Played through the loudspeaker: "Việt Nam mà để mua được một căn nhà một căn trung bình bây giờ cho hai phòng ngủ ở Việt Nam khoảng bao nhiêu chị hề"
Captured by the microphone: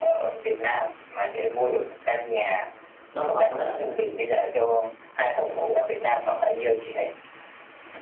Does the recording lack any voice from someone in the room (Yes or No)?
No